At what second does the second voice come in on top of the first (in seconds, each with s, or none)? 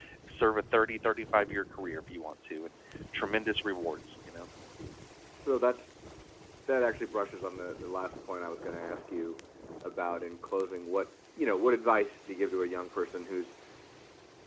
none